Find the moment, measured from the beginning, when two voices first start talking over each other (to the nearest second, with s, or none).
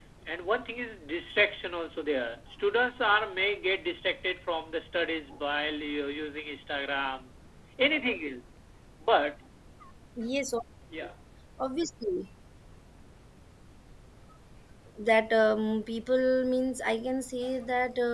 none